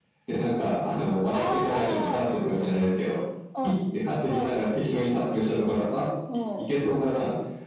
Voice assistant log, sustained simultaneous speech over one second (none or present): present